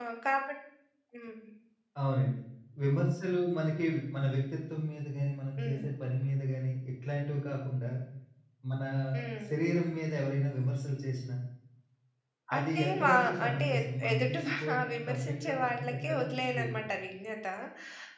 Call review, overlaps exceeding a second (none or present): present